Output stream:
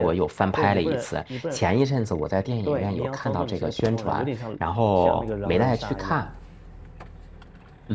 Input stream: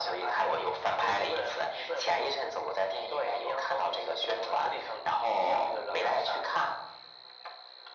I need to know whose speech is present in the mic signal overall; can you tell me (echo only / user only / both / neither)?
echo only